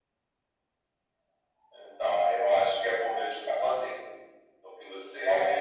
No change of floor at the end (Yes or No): Yes